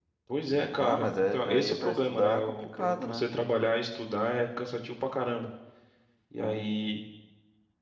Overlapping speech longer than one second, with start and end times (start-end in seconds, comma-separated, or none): 0.5-3.3